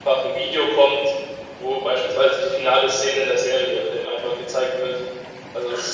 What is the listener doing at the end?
taking over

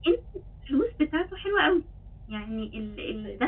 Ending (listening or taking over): listening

